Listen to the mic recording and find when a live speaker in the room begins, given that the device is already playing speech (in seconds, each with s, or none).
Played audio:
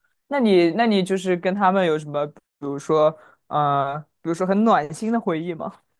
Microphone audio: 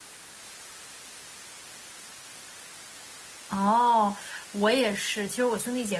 3.5 s